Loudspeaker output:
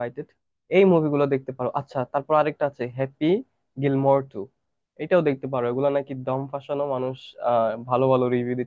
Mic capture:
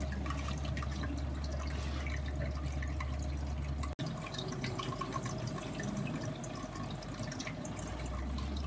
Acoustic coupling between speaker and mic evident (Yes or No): No